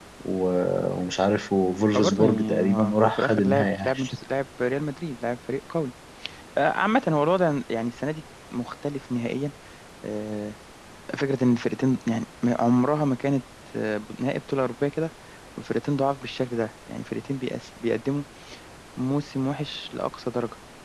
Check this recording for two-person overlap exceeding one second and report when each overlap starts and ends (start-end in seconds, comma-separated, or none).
1.9-3.9